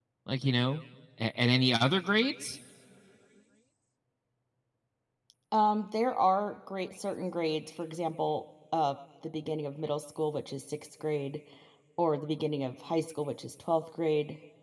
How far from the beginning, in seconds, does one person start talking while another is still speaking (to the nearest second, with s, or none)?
none